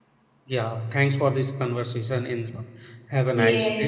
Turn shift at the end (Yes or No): Yes